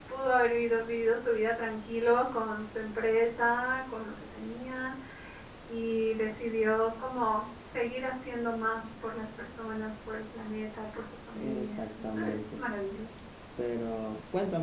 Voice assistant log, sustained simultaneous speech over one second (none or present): present